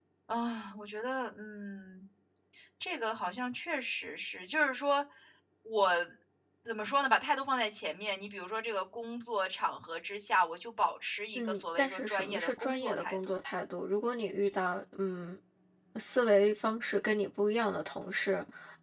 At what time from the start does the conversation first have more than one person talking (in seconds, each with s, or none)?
11.4 s